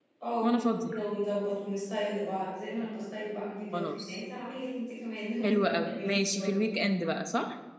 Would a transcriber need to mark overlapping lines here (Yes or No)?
Yes